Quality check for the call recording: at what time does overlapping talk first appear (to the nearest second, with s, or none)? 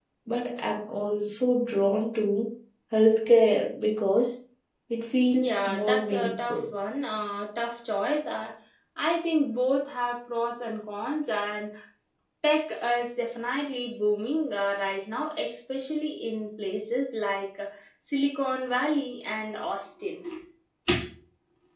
5 s